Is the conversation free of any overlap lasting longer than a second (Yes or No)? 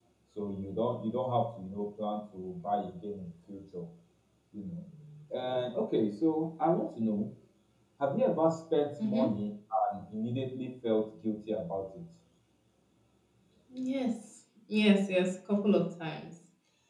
Yes